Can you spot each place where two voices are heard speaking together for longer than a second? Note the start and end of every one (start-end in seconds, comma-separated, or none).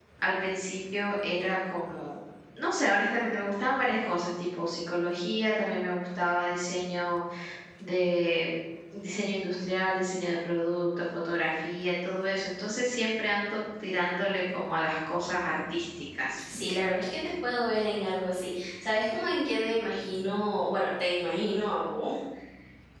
none